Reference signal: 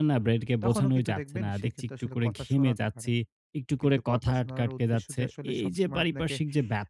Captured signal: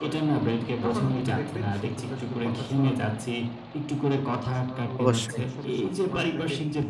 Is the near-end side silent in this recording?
No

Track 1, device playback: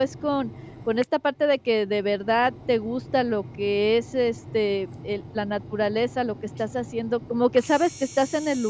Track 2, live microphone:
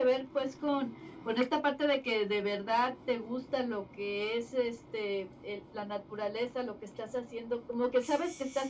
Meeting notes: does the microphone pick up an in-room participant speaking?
No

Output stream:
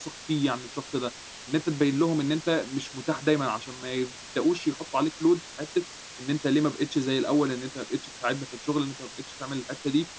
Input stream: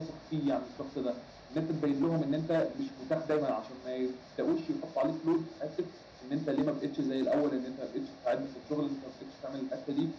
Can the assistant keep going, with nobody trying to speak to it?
Yes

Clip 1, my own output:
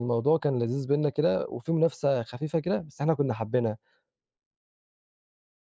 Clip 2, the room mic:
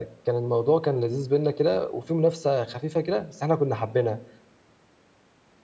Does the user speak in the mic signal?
No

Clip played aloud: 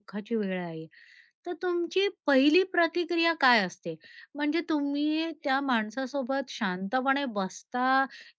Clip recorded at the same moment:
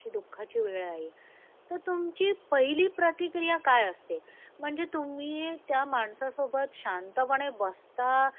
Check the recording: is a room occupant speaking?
No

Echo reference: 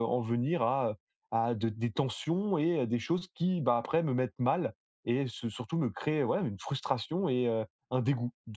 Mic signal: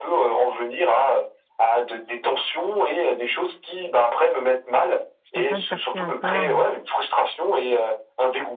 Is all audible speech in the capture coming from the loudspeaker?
No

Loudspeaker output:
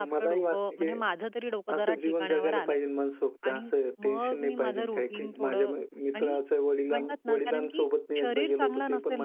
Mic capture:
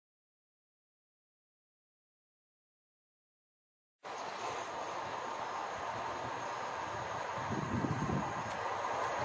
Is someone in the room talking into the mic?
No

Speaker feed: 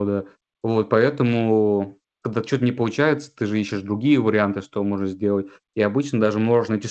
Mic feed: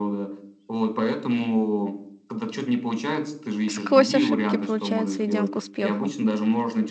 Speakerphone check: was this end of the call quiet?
No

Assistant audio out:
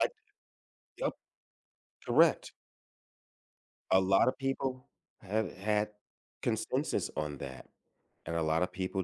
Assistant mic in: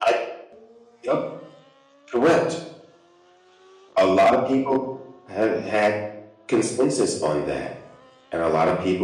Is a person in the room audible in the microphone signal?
No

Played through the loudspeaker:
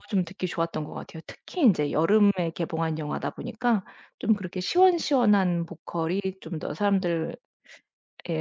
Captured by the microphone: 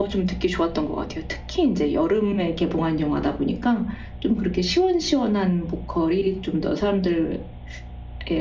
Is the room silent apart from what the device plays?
Yes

